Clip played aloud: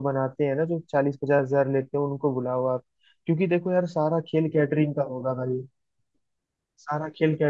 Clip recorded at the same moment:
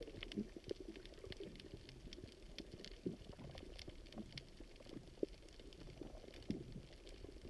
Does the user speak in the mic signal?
No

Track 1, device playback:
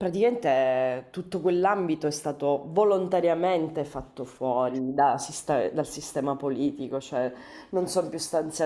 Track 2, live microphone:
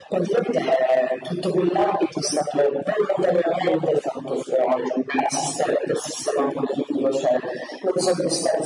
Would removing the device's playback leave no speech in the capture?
Yes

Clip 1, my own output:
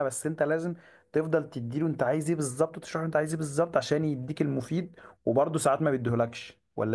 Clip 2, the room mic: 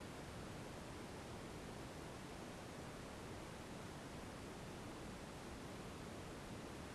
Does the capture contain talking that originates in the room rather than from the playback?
No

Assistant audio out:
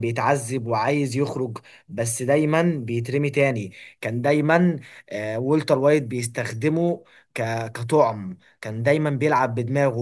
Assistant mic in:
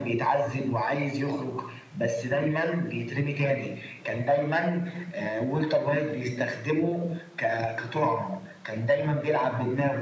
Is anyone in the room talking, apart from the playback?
No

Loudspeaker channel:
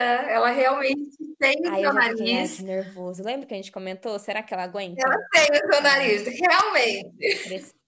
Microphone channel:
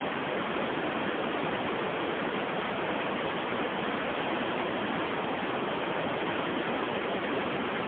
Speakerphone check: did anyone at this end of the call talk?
No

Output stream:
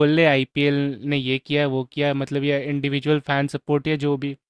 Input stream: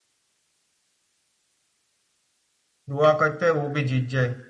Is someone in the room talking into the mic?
Yes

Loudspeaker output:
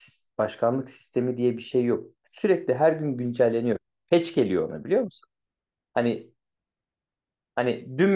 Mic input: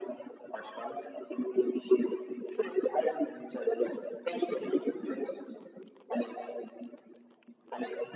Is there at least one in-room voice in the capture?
No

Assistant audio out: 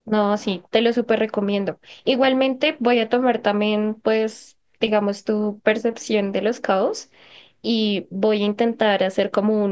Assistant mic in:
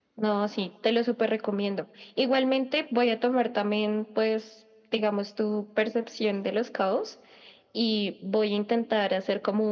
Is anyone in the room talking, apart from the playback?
No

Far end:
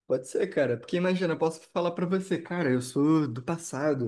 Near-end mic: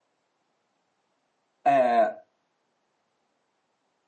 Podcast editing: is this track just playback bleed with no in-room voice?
No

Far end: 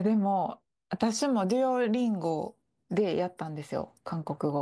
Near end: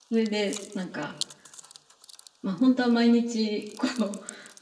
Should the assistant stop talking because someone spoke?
Yes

